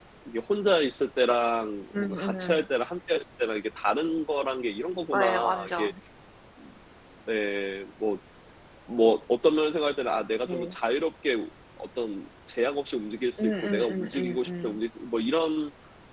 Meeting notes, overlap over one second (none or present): present